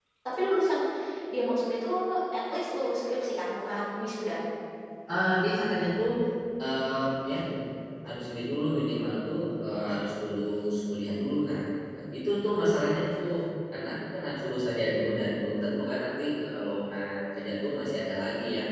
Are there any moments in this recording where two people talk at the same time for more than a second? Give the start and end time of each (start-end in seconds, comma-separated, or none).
none